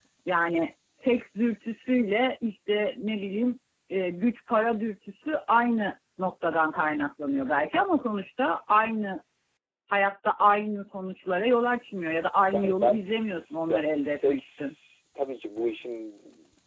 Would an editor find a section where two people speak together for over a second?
Yes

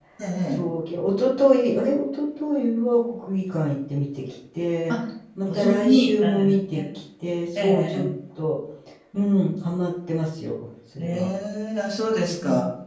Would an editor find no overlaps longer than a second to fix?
No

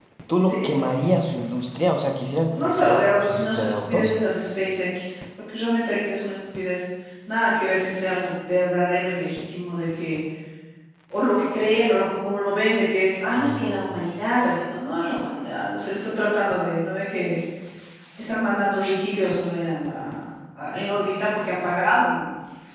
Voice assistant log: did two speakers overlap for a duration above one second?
Yes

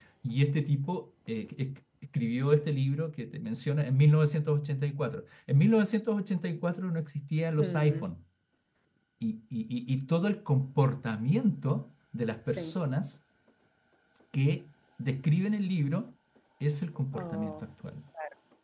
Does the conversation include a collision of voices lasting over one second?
No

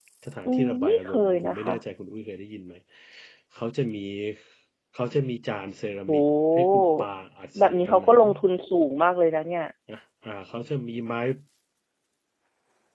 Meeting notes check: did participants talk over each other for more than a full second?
Yes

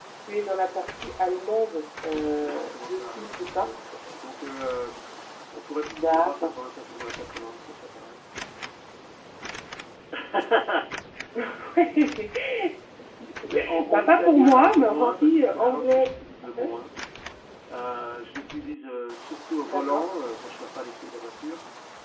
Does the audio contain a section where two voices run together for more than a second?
Yes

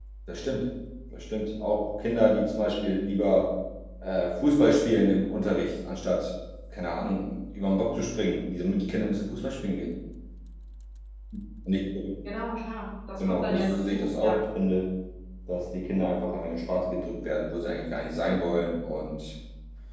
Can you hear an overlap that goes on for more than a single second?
Yes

